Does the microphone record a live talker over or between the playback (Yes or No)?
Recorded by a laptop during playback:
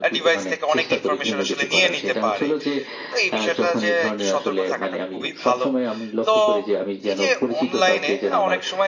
Yes